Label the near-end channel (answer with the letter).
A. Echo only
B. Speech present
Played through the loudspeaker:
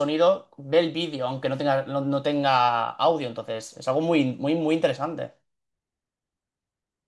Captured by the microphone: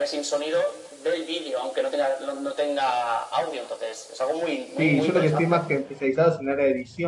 B